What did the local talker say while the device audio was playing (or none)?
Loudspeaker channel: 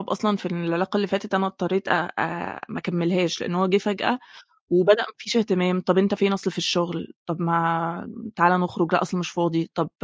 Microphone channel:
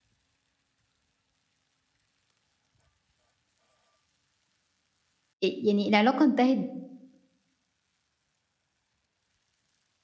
أ يعني العلاقة انتهت